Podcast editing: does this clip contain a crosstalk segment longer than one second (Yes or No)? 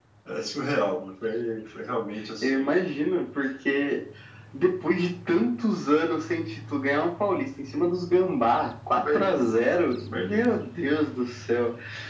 No